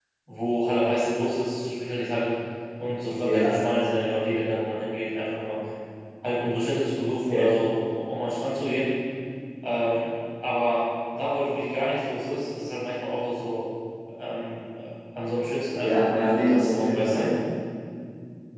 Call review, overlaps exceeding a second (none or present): present